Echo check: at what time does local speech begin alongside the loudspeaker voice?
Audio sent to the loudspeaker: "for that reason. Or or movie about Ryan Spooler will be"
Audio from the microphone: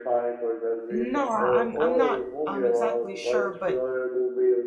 0.9 s

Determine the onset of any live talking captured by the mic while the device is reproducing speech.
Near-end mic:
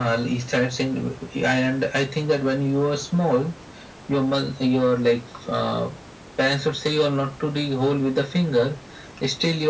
none

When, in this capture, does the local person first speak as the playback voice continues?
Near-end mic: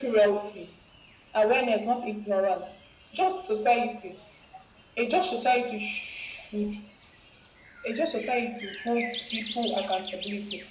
none

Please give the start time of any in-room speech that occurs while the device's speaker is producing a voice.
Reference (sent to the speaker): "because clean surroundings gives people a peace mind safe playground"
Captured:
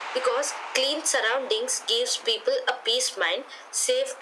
none

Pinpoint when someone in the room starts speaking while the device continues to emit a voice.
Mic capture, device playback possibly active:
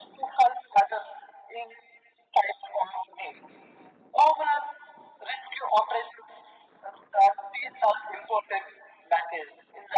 none

